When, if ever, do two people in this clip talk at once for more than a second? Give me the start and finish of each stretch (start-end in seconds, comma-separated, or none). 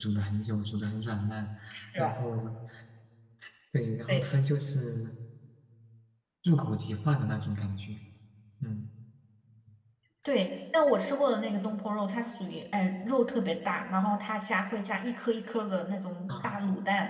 none